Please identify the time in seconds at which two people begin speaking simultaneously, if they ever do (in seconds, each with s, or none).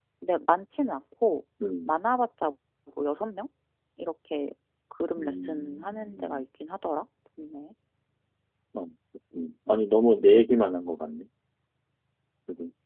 5.2 s